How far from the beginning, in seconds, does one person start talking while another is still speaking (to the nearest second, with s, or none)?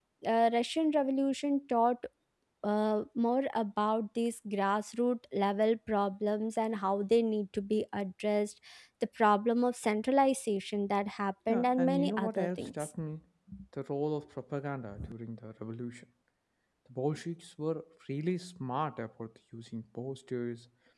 11 s